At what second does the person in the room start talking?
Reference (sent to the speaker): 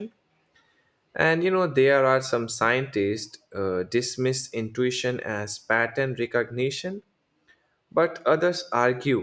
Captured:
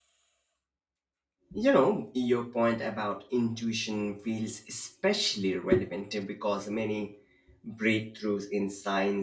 1.5 s

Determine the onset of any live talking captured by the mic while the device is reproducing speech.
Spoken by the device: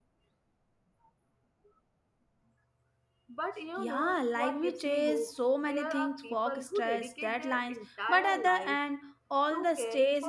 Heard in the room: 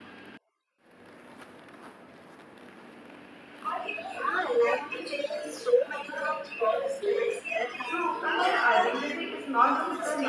7.8 s

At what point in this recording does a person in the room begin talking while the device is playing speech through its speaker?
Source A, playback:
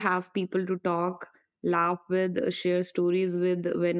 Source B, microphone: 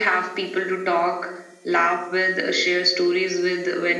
none

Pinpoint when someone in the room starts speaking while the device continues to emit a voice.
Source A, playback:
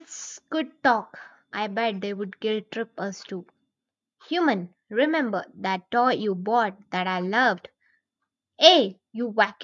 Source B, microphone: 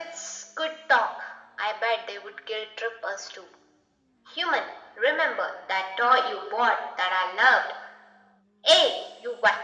none

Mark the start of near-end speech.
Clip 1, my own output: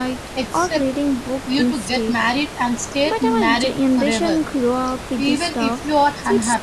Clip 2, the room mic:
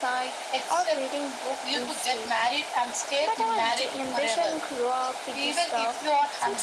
none

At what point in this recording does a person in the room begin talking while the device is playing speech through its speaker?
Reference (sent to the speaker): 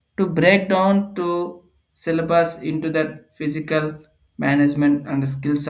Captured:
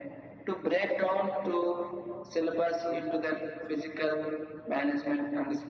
none

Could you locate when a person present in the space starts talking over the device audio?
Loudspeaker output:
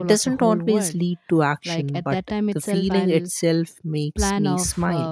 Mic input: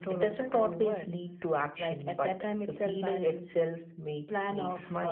none

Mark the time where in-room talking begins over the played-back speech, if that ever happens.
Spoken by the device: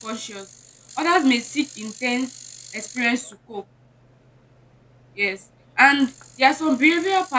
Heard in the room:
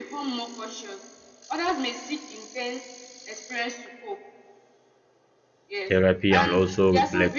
5.8 s

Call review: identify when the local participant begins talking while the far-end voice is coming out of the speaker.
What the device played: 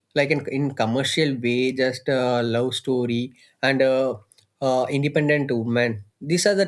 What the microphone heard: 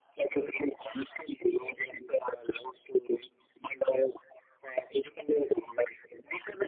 none

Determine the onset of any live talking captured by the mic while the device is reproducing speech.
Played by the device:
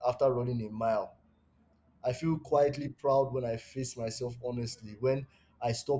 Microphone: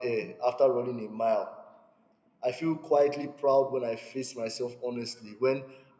none

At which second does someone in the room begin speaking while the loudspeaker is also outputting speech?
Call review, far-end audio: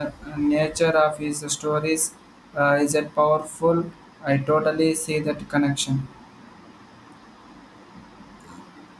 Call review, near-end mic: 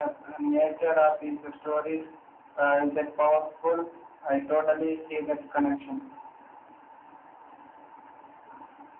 none

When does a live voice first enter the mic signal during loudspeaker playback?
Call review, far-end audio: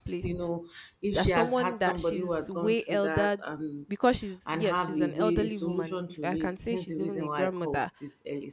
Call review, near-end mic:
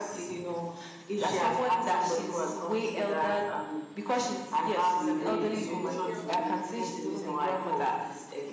5.2 s

